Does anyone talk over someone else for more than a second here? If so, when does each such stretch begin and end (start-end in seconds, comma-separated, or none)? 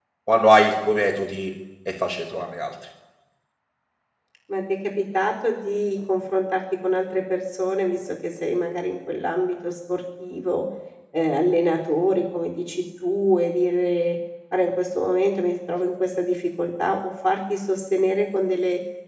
none